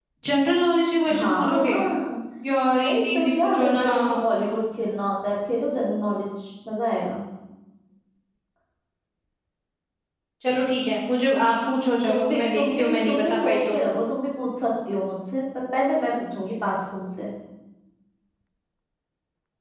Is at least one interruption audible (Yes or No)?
Yes